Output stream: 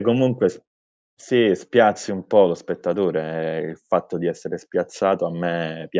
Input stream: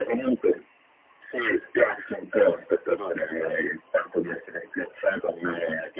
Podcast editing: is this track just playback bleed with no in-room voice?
Yes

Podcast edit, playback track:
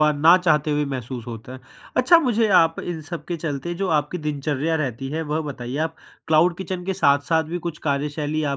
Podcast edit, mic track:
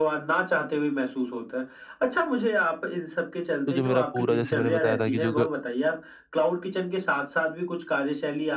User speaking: Yes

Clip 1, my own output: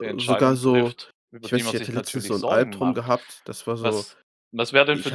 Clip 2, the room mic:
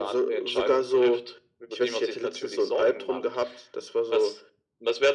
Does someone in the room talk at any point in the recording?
No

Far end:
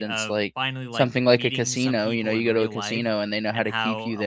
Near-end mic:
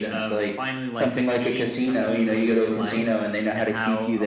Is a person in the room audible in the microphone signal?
No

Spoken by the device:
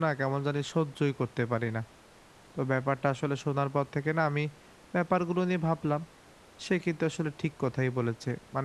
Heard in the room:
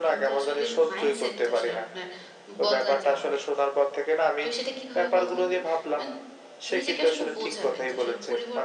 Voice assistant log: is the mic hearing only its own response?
No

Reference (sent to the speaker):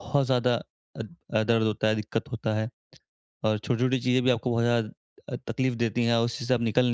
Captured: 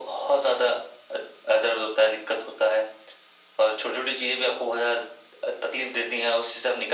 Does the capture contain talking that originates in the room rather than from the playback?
No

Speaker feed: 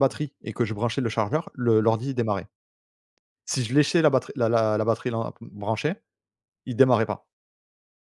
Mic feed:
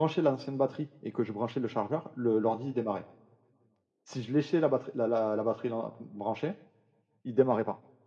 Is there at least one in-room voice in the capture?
No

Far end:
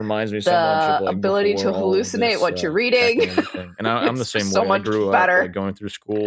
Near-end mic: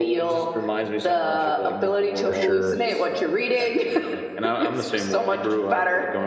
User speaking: Yes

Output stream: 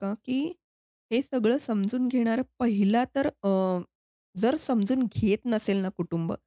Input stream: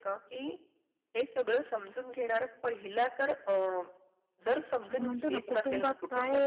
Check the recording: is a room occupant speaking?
Yes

